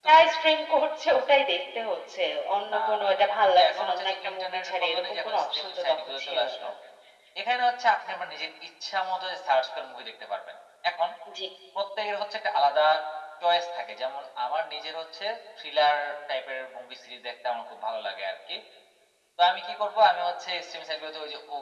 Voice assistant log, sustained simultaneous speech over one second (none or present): present